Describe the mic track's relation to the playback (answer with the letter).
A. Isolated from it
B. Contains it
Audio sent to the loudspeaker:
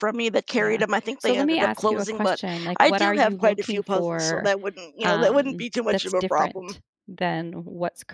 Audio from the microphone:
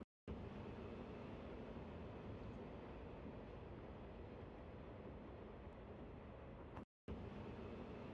A